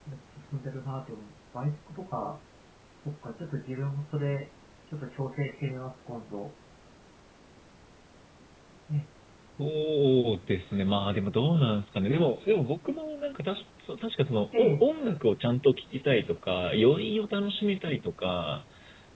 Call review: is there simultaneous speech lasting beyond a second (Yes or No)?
No